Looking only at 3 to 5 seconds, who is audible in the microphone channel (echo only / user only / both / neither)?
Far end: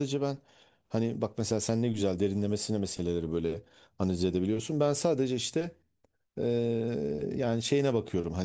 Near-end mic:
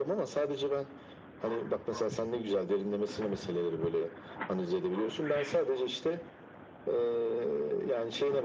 echo only